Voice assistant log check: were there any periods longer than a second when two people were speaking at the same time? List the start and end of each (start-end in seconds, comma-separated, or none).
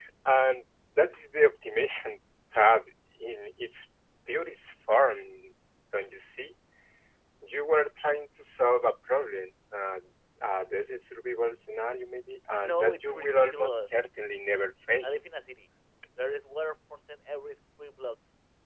12.6-13.9